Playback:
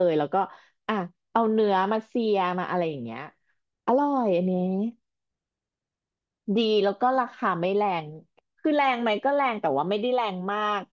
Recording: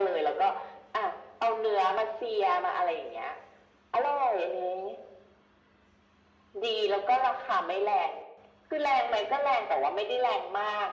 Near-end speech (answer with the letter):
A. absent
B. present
A